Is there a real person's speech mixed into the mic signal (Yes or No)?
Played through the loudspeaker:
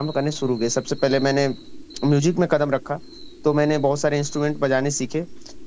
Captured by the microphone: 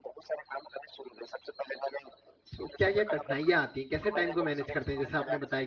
Yes